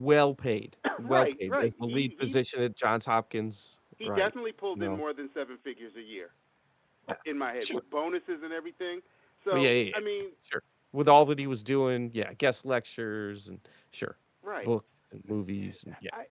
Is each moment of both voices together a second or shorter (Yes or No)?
No